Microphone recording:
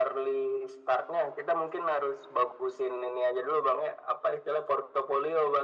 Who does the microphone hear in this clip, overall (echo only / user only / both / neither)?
echo only